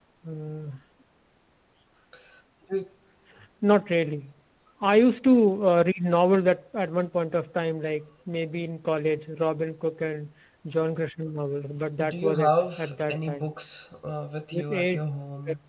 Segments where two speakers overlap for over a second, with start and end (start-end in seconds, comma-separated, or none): 12.0-13.5